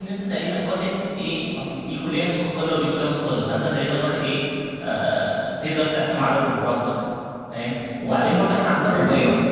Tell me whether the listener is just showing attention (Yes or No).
Yes